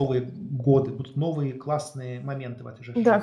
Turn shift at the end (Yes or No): Yes